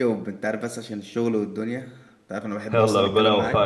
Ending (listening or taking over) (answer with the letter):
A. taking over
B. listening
A